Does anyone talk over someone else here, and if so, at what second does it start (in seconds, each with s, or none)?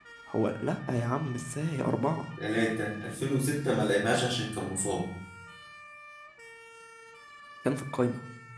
none